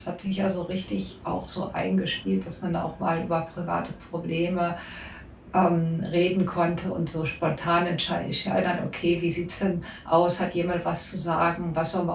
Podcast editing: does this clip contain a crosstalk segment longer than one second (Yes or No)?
No